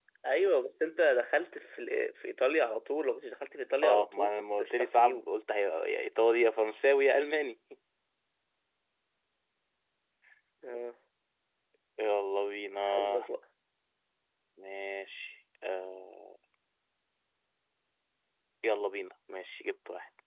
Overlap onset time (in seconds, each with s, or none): 3.8 s